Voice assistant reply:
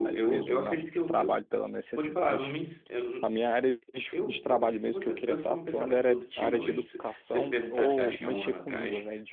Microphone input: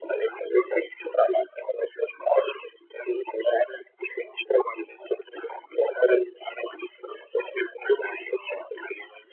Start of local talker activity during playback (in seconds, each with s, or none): none